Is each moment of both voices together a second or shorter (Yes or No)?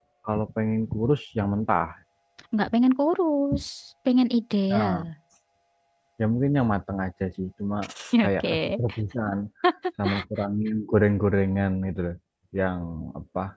Yes